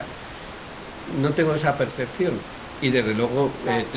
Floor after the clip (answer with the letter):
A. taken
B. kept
B